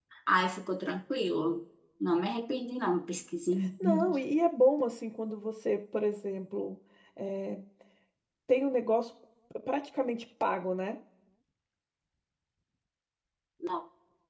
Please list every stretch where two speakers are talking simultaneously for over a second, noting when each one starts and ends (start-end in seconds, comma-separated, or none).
none